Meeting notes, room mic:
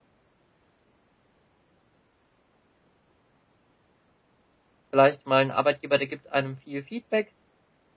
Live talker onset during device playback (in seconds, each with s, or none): 4.9 s